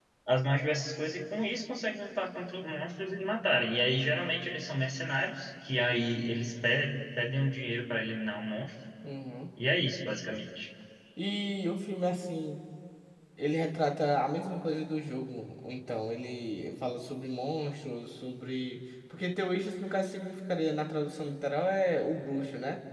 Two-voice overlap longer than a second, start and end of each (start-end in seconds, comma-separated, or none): none